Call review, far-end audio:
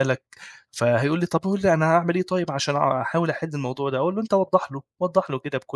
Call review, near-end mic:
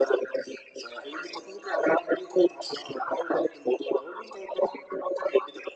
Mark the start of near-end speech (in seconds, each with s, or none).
none